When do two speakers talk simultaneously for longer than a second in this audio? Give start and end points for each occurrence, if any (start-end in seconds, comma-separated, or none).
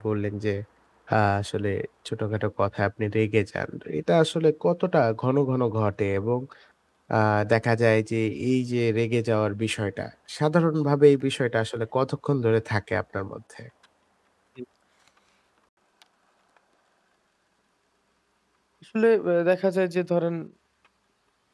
none